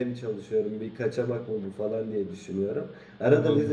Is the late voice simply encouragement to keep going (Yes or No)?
Yes